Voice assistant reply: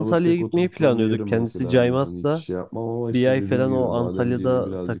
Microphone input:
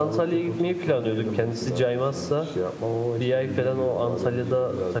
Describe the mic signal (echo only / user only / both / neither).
echo only